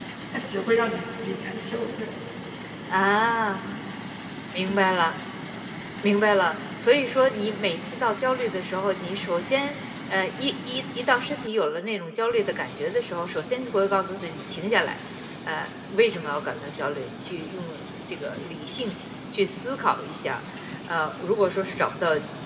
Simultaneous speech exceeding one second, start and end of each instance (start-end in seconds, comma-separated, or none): none